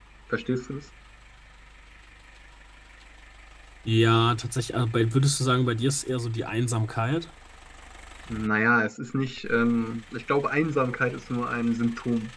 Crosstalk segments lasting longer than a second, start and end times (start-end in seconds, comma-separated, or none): none